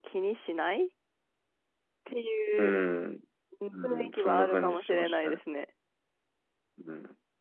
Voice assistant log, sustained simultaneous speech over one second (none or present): present